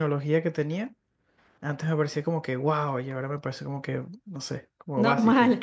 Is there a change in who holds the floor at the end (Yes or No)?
Yes